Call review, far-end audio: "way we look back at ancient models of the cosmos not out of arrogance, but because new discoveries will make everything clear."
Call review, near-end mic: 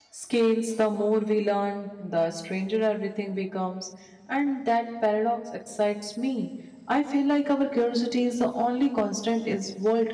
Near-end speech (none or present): present